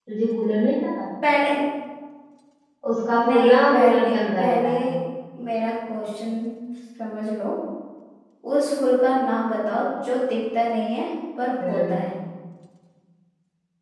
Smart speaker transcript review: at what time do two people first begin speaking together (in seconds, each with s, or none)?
3.3 s